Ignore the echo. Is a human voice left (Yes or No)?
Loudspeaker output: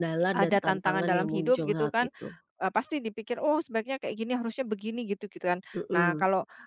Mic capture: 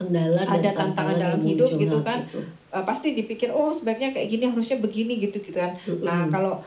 No